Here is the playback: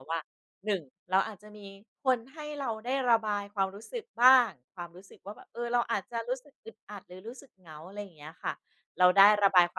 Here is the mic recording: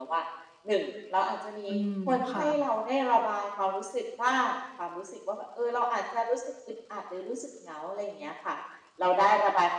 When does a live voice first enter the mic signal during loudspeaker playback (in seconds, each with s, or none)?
1.6 s